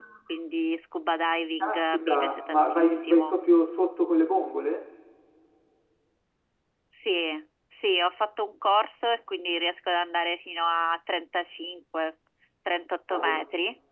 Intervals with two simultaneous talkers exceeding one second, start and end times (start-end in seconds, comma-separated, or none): 1.6-3.4